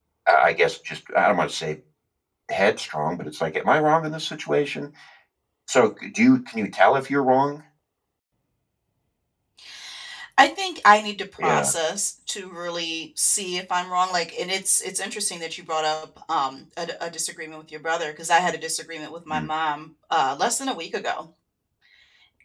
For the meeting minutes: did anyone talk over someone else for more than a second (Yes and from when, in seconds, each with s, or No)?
No